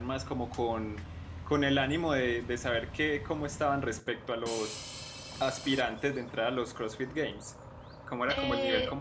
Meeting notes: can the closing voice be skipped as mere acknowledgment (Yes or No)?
No